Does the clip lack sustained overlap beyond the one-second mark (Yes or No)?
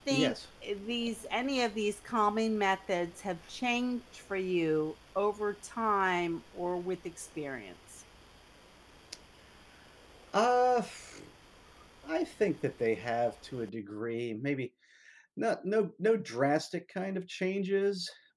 Yes